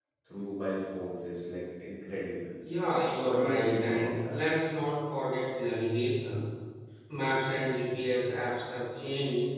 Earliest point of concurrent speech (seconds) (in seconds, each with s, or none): 3.2 s